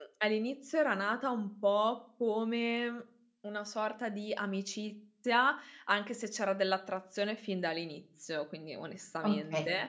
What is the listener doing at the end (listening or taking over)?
taking over